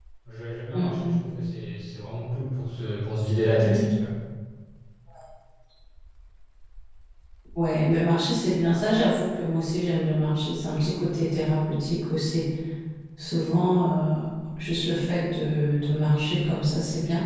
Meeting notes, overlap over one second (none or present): none